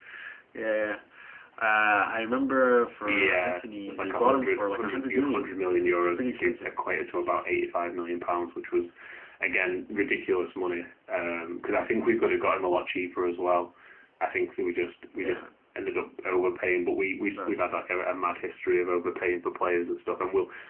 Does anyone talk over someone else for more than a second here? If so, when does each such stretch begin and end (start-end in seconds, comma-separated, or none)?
3.0-6.8